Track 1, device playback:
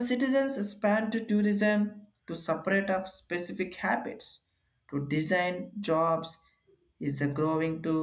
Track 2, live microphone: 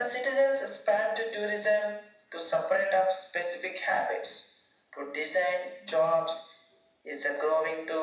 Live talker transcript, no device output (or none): none